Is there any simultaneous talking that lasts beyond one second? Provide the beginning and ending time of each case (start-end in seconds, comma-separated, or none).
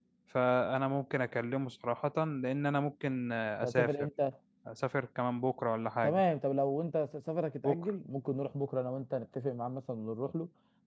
none